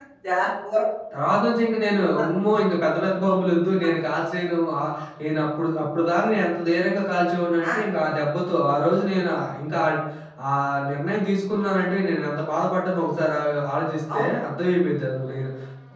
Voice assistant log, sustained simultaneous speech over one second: none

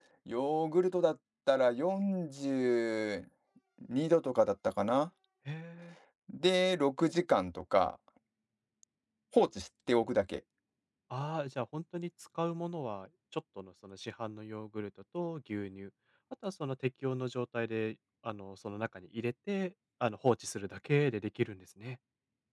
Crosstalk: none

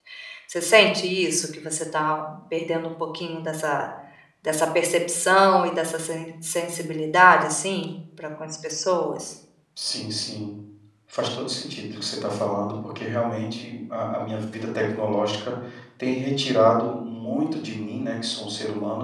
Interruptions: none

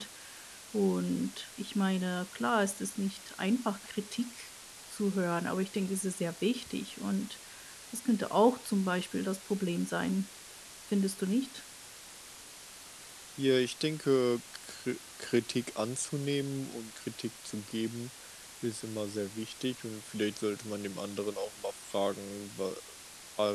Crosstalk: none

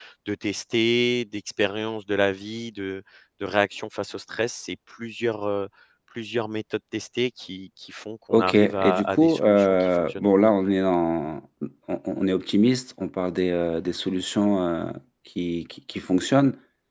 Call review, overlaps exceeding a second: present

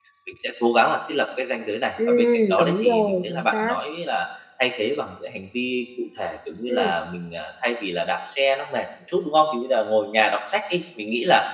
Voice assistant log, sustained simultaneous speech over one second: present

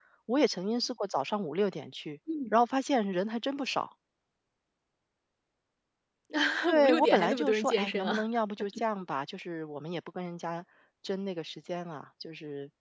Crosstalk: present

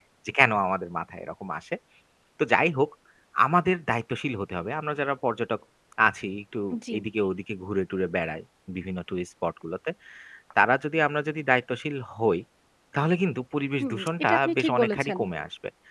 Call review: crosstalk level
present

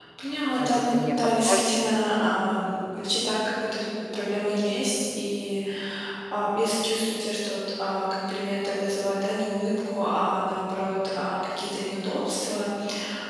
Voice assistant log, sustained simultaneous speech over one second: present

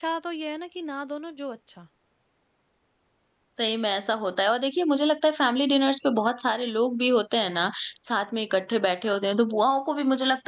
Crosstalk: none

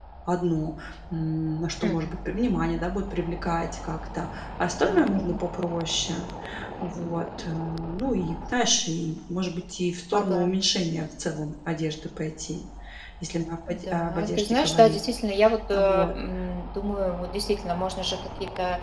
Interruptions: present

